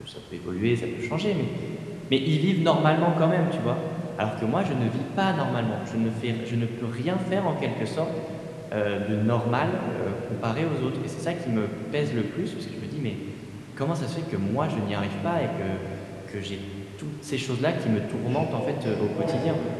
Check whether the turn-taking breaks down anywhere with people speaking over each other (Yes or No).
Yes